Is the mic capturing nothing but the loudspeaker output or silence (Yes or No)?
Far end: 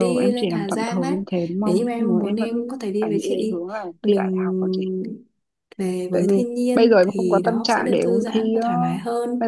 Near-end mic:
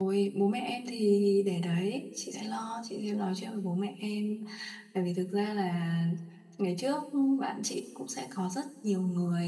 No